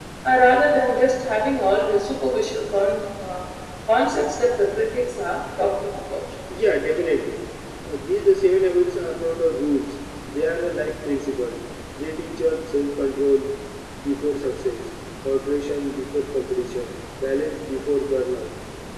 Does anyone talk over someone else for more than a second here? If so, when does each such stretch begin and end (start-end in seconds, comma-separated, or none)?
none